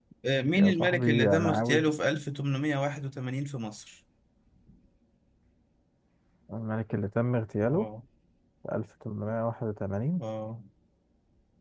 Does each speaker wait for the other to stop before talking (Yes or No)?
No